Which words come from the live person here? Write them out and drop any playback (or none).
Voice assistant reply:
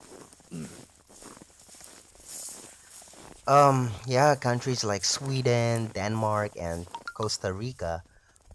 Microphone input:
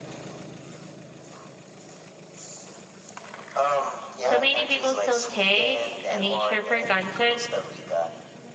So many people still take nature for granted